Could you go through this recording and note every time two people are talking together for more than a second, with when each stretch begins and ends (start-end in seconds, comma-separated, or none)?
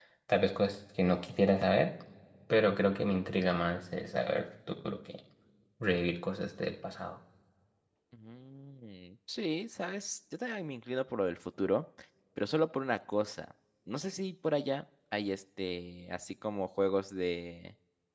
none